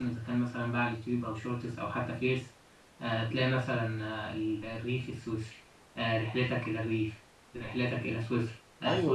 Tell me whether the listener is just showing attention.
Yes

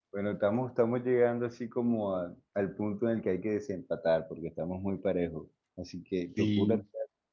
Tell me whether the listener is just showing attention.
Yes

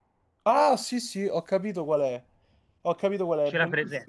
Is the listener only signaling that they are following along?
Yes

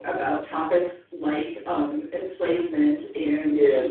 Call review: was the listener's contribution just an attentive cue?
Yes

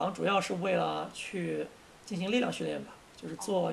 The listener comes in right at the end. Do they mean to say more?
No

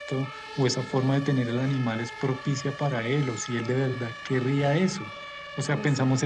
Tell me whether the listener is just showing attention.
Yes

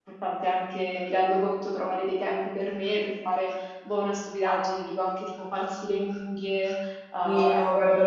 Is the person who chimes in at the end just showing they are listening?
No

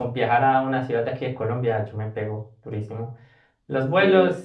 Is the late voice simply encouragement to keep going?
Yes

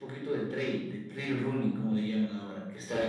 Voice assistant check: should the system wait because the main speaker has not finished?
No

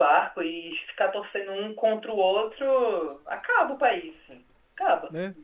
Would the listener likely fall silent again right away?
No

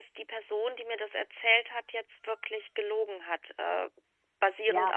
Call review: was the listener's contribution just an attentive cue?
Yes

